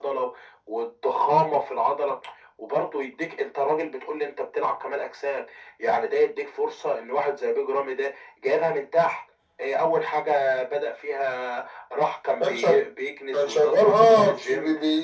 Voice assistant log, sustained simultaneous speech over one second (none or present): present